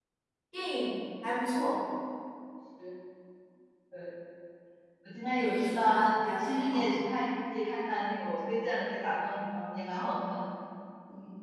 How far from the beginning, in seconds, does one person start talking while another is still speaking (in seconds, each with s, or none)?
5.3 s